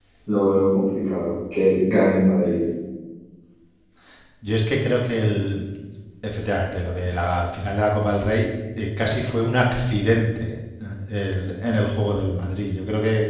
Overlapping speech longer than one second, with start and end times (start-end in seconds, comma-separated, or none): none